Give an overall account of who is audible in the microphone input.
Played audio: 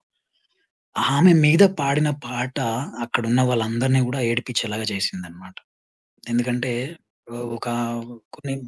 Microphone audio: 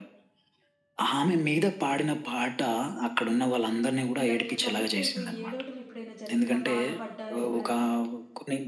both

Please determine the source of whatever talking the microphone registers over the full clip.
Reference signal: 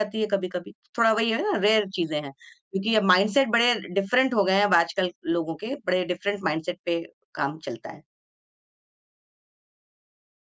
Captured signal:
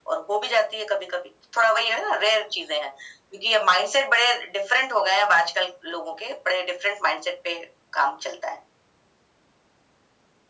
echo only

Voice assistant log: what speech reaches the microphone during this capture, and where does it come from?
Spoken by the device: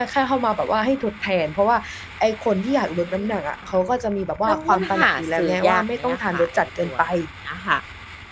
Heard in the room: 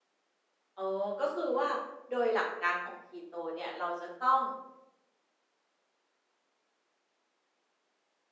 user only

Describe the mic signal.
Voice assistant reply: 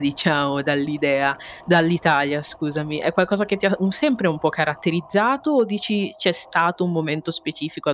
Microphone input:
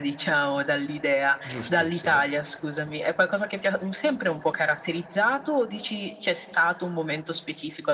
both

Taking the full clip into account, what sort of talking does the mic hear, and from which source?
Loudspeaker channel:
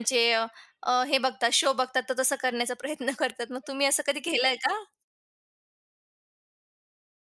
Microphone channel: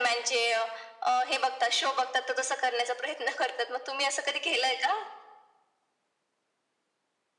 echo only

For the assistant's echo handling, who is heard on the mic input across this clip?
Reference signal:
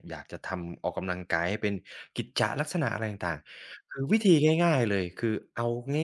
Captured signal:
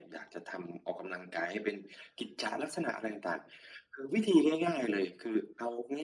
echo only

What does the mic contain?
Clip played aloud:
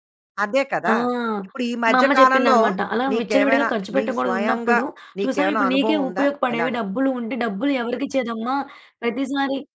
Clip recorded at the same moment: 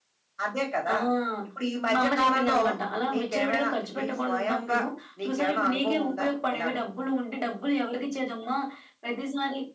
echo only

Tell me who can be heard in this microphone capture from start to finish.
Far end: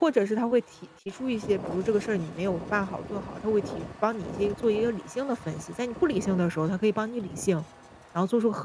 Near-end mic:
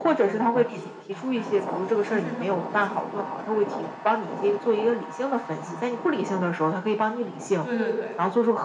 both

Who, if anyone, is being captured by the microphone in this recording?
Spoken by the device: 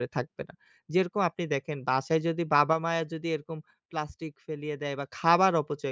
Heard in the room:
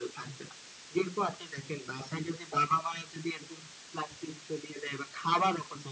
echo only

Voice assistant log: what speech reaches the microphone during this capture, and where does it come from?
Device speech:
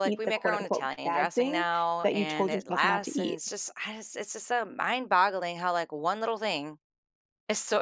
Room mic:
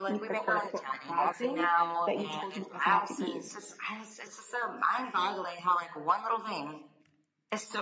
echo only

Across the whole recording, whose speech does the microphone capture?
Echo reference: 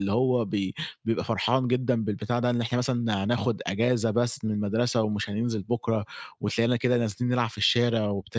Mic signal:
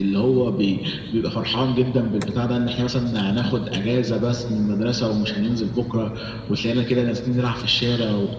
echo only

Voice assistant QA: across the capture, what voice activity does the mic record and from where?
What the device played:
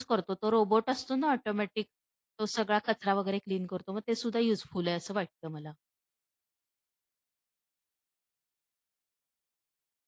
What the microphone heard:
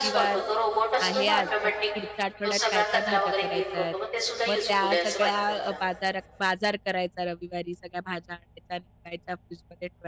both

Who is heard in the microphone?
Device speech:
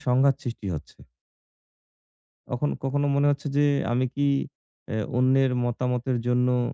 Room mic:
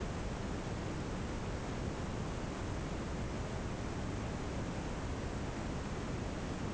neither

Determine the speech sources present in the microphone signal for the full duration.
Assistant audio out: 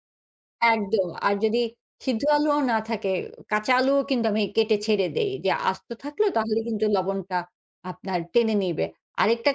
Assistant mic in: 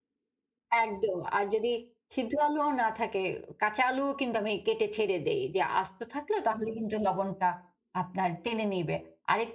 echo only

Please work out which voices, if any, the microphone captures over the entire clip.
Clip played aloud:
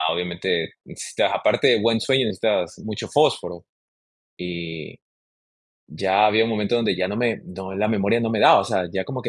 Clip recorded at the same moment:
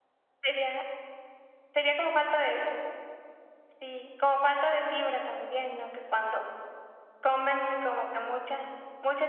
user only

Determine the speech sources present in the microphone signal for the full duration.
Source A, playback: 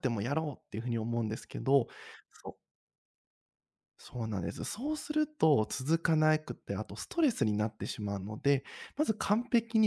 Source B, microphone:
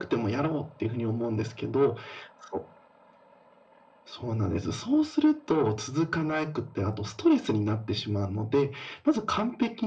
echo only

